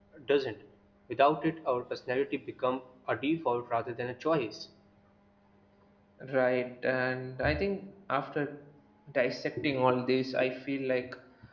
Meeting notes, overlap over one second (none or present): none